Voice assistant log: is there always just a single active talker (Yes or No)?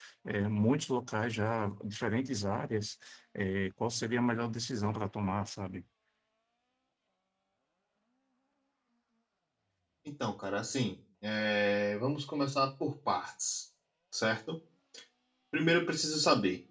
Yes